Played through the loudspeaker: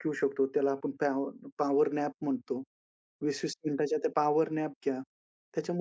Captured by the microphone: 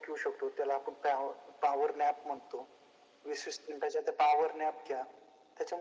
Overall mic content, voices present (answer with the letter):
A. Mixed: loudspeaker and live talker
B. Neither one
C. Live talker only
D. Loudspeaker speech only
D